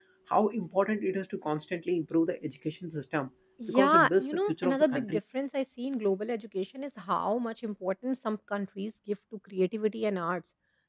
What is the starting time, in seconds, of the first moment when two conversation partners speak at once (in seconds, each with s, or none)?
3.6 s